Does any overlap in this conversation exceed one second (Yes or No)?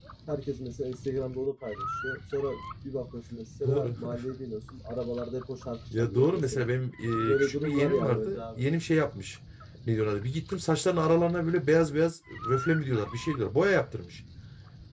Yes